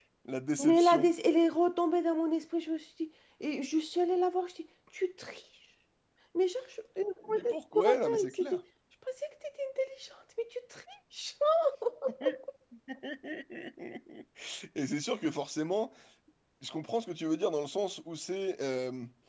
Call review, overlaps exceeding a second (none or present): present